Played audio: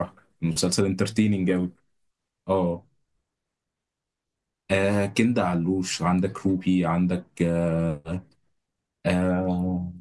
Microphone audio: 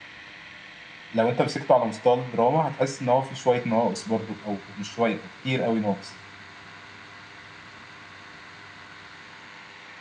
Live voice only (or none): لو انت مسكته على مستوى الدراما هتحس ان هو في شوية ناقص برضو او مش شوية كتير قوي ناقص